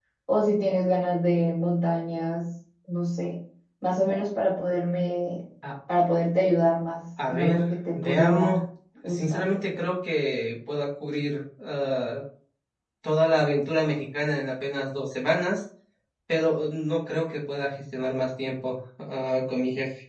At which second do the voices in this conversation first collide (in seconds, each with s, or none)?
7.3 s